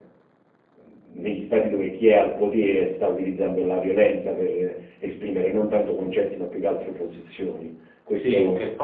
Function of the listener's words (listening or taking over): taking over